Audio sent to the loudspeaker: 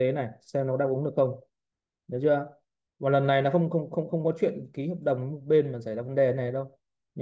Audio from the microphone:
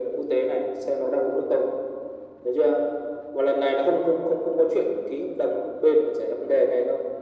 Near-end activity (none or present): none